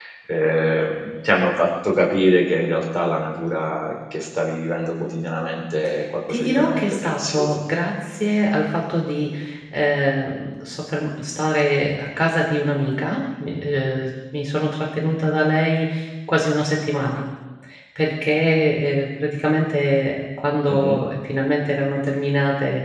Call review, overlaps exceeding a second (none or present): present